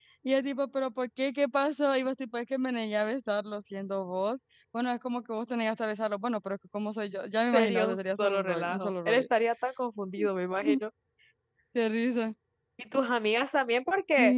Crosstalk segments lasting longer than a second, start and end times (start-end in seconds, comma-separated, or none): 7.5-9.2